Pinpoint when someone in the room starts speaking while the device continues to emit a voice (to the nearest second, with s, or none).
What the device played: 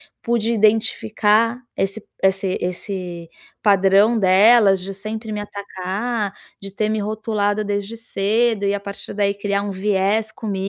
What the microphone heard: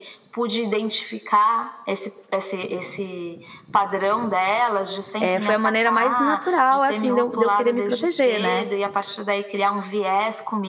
5 s